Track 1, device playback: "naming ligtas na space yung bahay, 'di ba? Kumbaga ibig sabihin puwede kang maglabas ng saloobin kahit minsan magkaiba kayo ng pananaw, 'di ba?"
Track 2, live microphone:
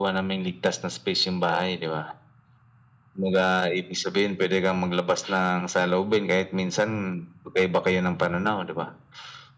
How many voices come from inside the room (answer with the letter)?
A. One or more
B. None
B